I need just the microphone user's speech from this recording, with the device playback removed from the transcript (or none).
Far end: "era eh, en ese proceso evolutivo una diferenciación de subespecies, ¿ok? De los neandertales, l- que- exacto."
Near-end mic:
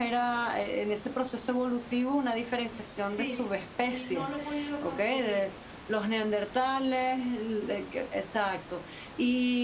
sí. Y no lo he podido conseguir.